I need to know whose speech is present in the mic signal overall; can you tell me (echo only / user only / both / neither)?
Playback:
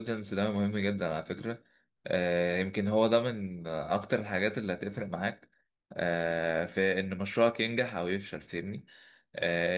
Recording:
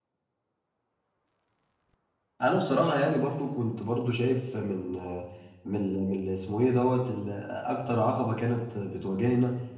user only